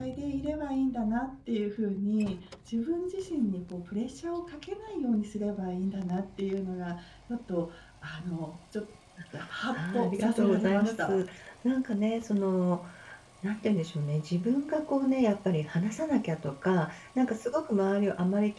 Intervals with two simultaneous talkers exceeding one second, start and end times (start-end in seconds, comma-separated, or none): 9.7-11.2